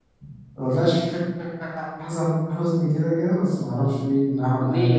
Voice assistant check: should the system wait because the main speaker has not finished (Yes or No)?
No